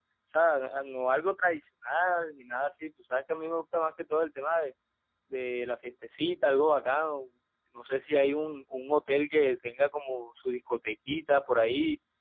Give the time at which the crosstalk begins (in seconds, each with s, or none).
none